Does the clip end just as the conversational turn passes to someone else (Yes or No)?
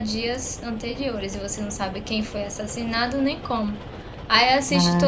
No